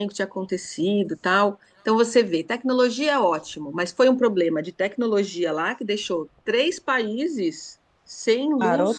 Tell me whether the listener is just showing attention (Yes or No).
Yes